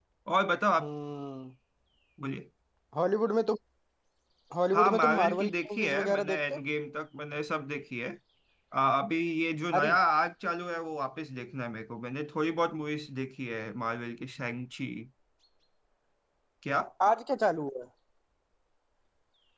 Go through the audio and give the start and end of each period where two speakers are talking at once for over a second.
4.7-6.6

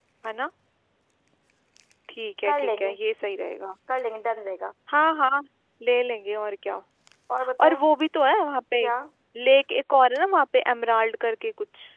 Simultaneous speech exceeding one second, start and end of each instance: none

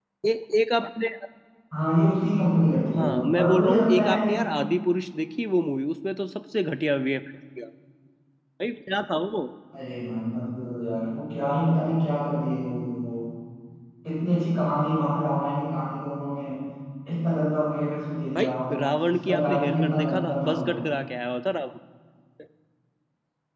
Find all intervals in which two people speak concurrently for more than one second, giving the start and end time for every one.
3.0-4.3, 18.9-20.7

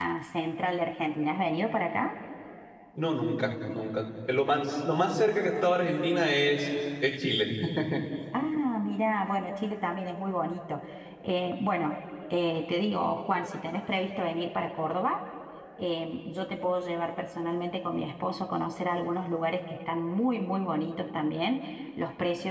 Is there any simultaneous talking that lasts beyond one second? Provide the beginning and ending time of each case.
none

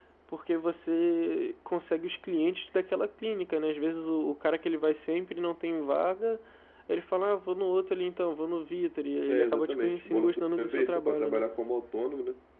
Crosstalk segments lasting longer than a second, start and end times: 9.3-11.4

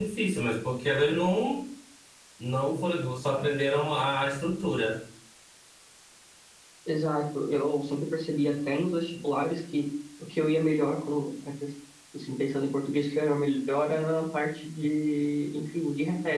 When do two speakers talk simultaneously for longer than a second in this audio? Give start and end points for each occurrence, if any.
none

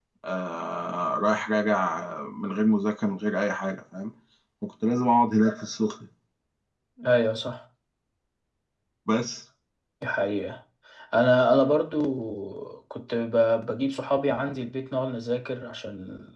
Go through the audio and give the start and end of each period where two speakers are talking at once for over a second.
none

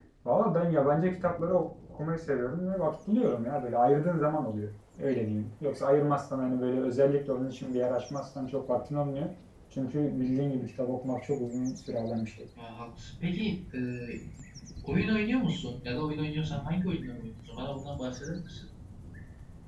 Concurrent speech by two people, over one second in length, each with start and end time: none

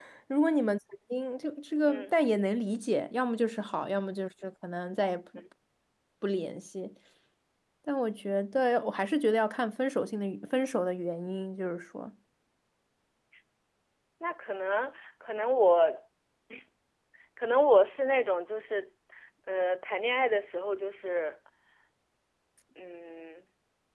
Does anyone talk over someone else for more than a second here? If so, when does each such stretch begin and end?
none

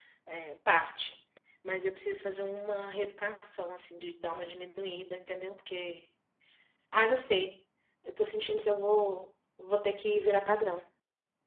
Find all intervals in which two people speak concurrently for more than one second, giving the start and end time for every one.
none

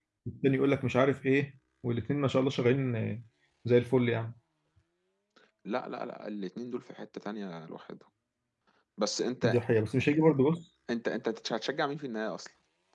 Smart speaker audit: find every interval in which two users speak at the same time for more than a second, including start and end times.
none

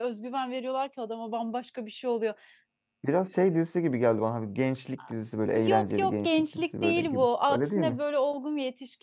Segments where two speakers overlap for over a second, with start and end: 5.6-8.0

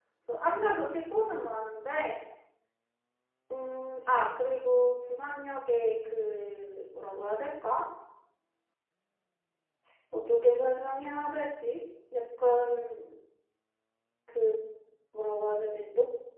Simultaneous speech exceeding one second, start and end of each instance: none

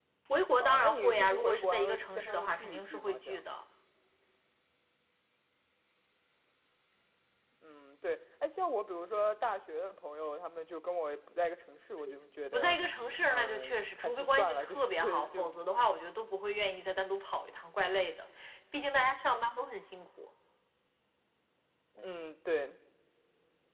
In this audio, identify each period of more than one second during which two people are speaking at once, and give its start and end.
0.6-3.4, 13.3-15.5

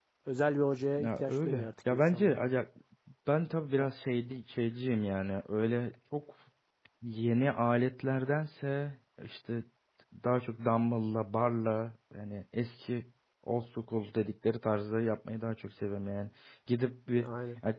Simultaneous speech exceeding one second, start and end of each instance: 1.0-2.4

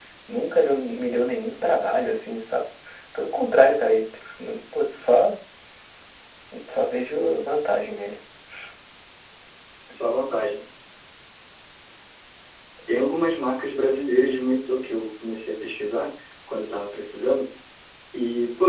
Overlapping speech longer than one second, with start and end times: none

